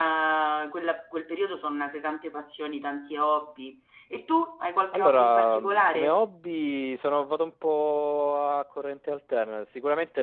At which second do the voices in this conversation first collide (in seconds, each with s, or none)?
4.9 s